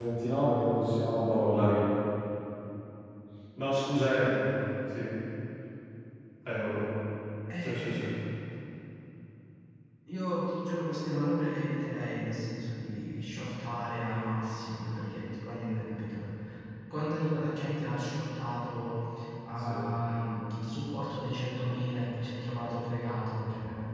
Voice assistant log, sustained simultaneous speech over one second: none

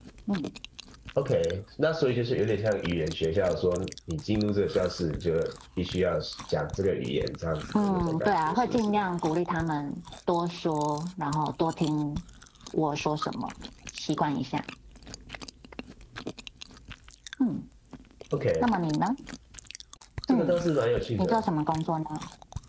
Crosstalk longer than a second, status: present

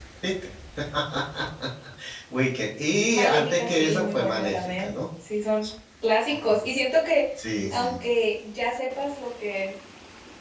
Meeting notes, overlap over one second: present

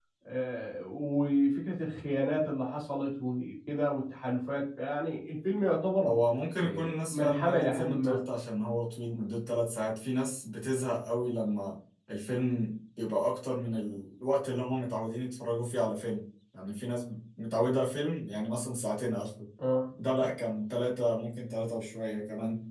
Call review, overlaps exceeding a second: present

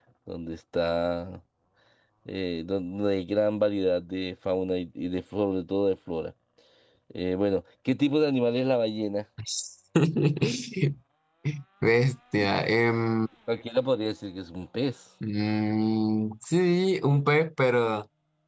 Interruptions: none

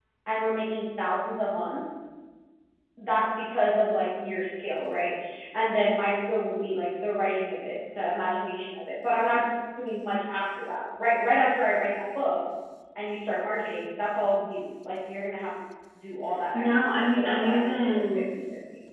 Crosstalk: present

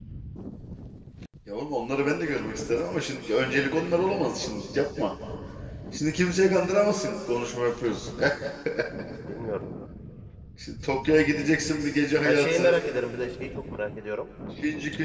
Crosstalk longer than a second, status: none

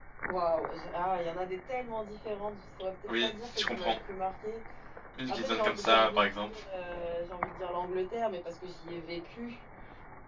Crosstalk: present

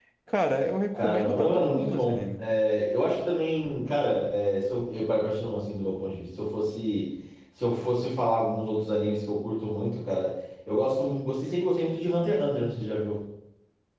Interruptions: present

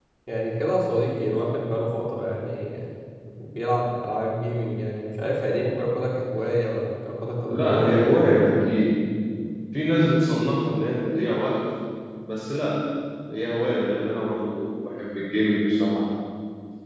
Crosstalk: present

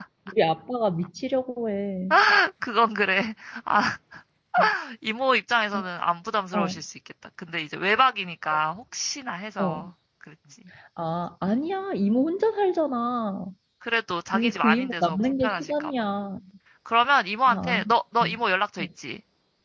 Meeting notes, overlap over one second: present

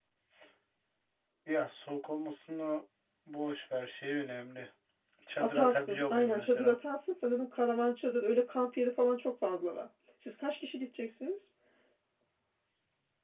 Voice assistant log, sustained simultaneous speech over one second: present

